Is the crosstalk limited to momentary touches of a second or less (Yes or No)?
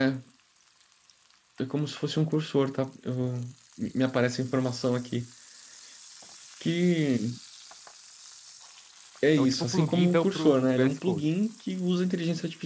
No